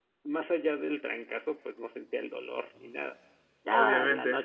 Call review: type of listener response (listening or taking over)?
taking over